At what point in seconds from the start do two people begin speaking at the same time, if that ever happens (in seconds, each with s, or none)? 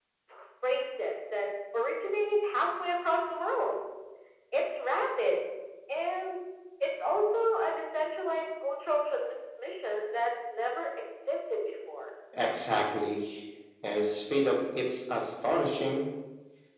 none